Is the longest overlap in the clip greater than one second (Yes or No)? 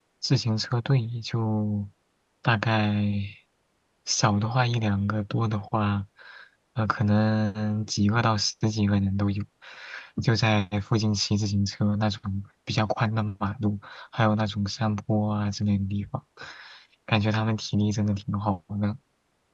No